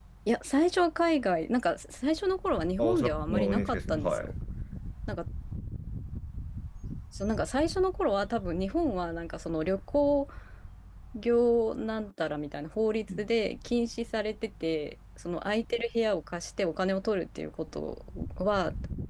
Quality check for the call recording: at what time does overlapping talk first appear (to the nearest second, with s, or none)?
3 s